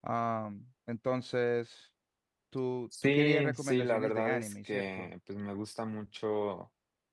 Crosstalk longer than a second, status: present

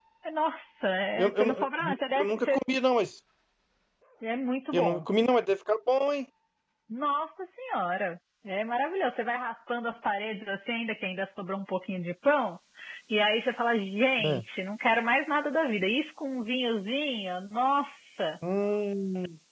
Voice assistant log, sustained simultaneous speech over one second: present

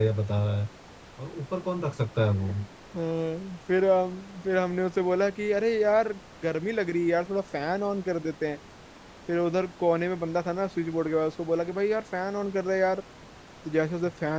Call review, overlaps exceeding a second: none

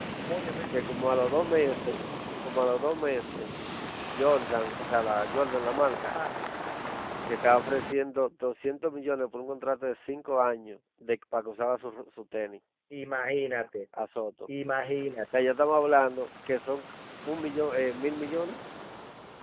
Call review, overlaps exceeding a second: none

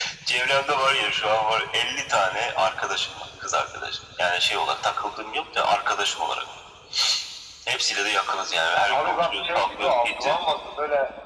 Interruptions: present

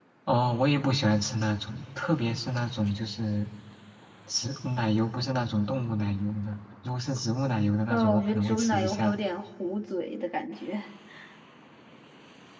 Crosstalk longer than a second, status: present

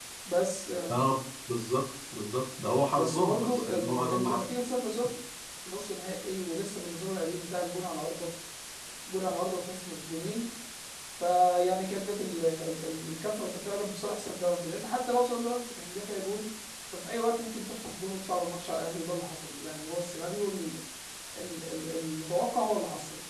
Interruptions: present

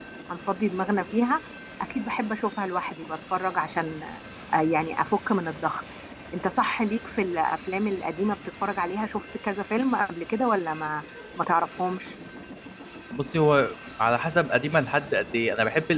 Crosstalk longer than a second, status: none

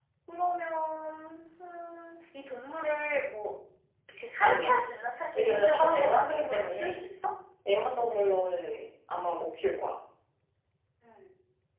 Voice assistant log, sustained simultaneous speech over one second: present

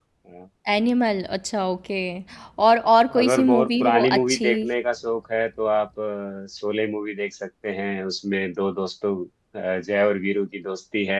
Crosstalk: present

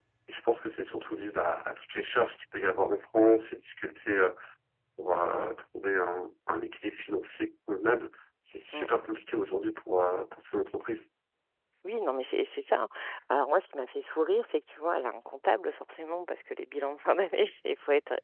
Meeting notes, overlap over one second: none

